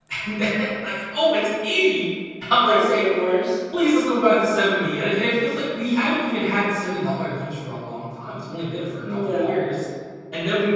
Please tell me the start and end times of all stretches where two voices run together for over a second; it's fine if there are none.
none

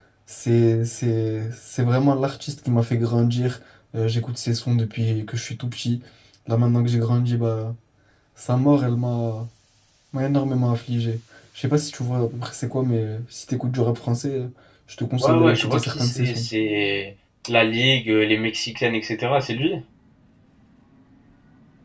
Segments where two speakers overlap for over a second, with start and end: 15.2-16.5

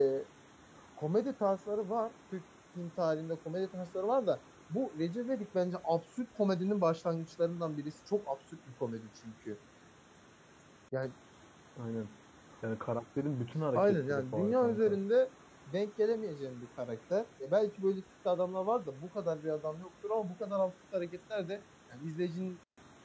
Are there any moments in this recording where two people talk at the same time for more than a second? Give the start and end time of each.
13.8-15.0

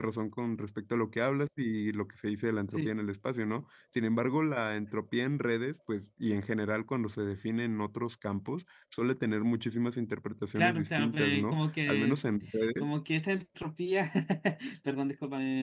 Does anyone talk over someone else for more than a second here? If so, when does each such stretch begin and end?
10.6-12.2

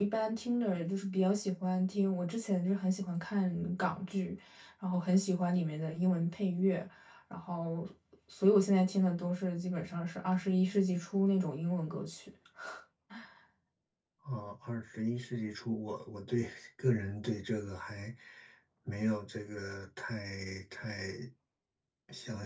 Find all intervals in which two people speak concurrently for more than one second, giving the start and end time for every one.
none

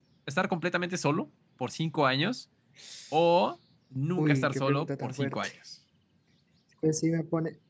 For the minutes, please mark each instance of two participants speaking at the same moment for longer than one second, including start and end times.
4.2-5.5

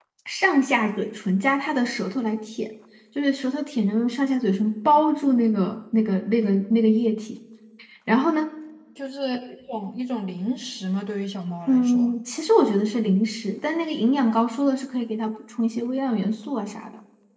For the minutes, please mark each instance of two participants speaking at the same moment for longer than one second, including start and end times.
none

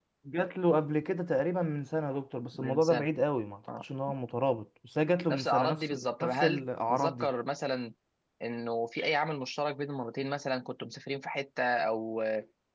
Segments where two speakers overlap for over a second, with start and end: 5.3-7.3

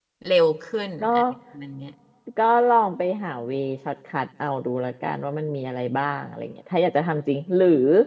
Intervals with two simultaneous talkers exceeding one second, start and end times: none

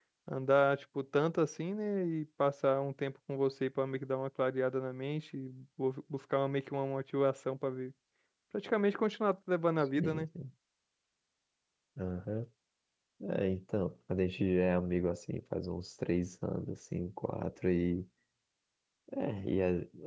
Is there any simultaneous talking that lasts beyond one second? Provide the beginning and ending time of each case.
none

